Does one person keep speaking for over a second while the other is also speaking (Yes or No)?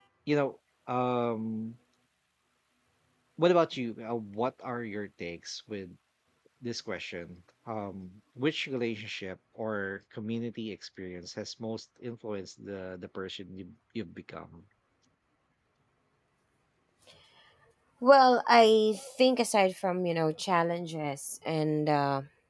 No